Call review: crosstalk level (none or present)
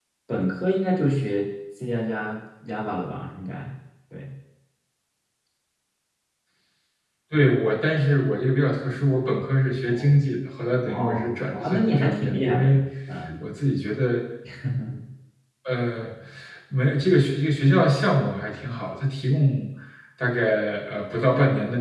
present